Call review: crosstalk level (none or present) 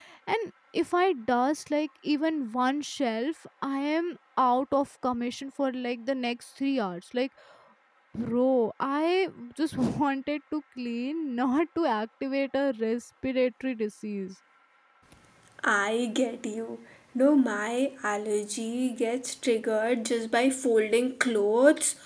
none